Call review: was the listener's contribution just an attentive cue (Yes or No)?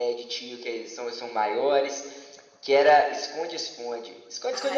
No